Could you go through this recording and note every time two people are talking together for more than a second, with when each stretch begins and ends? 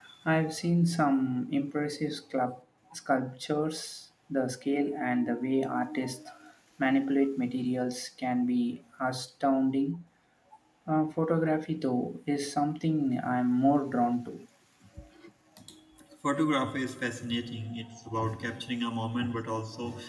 none

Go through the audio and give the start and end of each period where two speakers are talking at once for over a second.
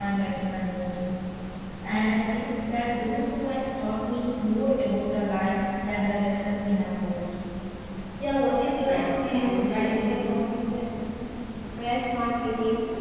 8.8-10.3

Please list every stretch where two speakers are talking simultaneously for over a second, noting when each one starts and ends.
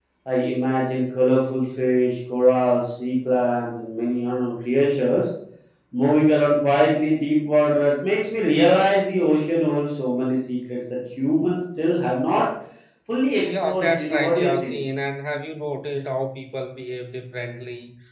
13.4-14.8

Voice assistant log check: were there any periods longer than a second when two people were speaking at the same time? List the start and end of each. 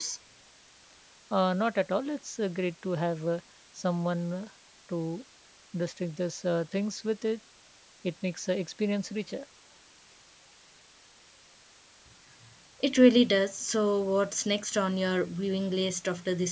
none

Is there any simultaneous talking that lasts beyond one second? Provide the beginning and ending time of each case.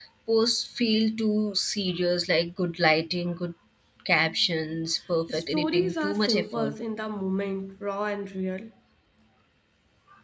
5.3-6.8

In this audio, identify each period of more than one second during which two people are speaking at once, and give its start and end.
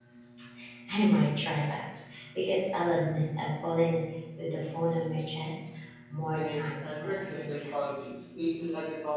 6.3-7.8

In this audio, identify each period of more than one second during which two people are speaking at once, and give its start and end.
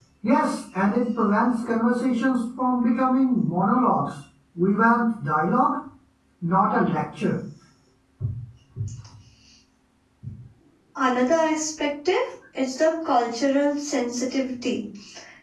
none

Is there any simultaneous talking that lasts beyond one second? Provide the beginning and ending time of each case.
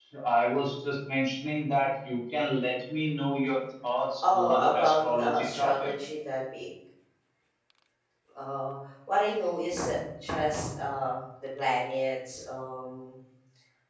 4.2-5.9

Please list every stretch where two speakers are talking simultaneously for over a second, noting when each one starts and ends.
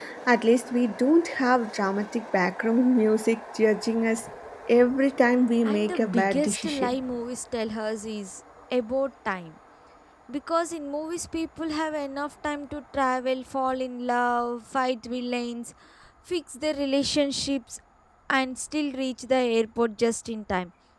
5.6-7.0

